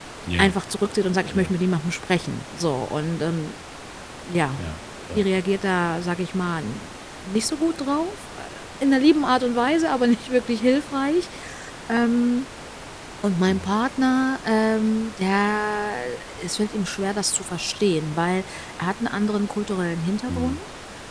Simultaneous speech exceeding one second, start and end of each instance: none

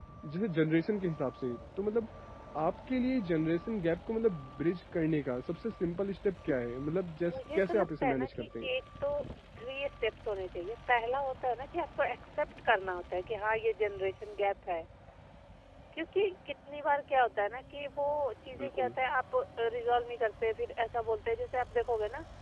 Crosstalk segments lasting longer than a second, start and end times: 7.2-8.7

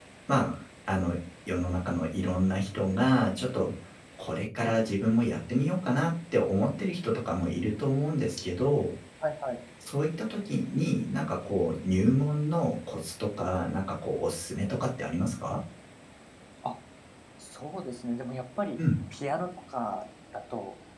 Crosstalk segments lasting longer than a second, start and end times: none

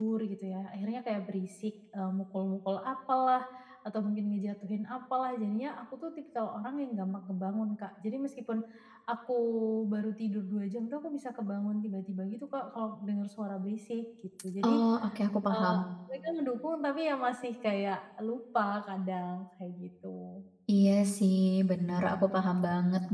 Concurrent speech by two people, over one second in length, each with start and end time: none

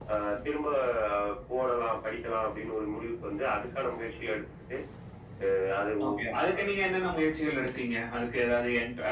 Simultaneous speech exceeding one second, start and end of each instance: none

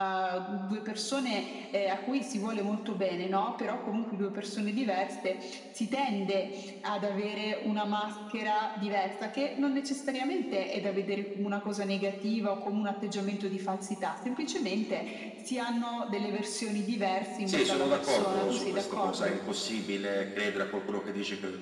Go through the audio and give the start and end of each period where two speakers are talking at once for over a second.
17.5-19.4

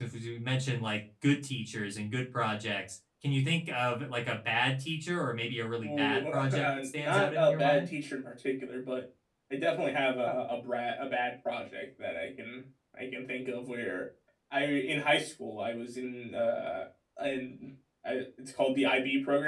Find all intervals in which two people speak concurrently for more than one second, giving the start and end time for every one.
5.8-7.9

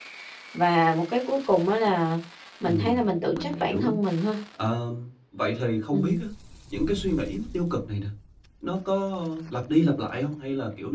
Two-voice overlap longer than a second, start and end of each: 2.6-3.9

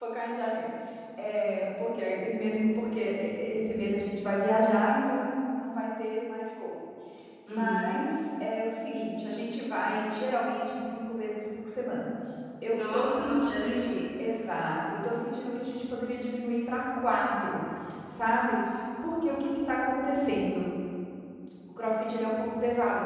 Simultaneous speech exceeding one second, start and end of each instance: 12.7-13.9

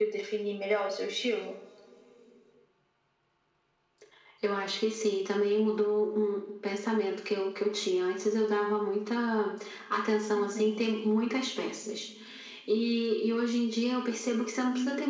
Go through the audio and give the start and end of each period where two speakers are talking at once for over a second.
none

